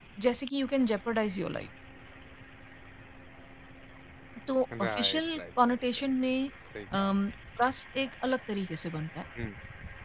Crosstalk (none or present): present